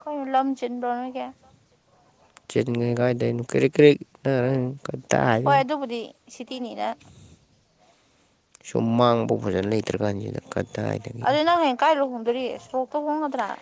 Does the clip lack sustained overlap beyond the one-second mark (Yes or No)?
Yes